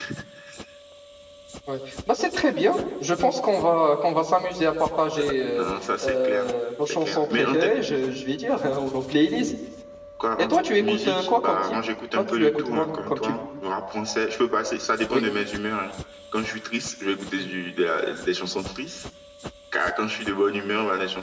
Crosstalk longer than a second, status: present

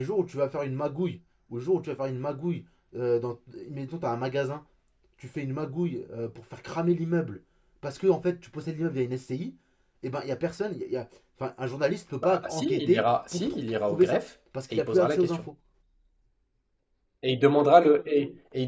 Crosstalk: present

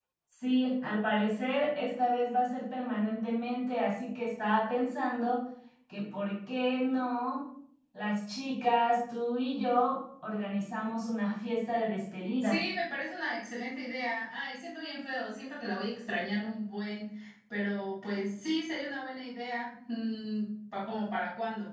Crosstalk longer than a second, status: none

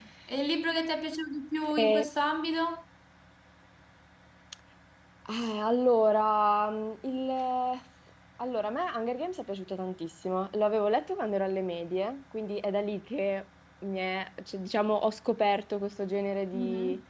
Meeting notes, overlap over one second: none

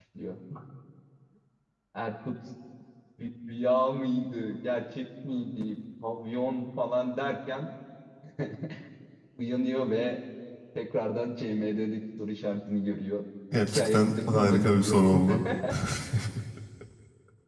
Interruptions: present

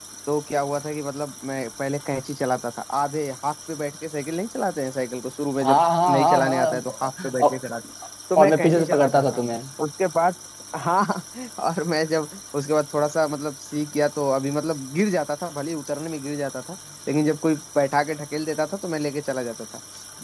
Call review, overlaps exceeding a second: present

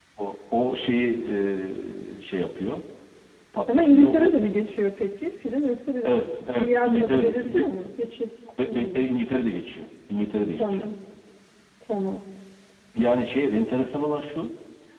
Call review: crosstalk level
present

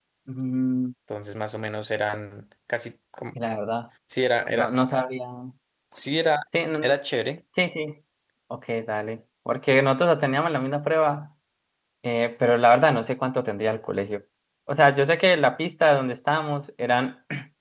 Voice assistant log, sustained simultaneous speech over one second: none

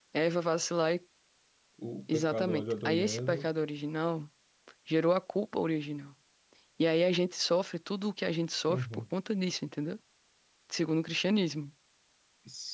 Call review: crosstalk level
present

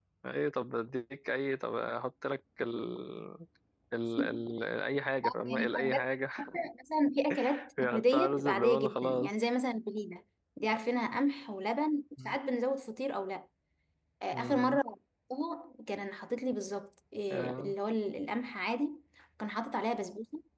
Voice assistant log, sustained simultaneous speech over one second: present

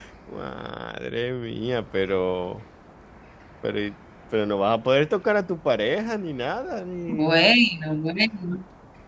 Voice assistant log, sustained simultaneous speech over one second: none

